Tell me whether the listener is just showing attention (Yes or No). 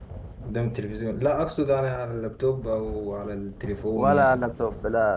No